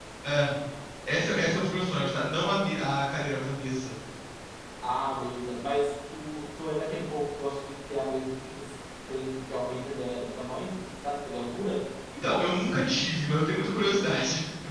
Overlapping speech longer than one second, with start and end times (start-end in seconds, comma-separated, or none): none